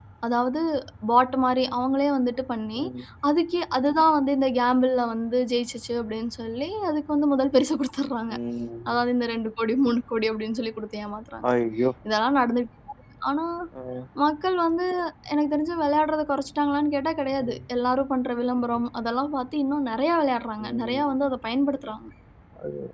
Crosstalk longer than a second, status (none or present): none